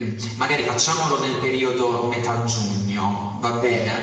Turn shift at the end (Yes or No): Yes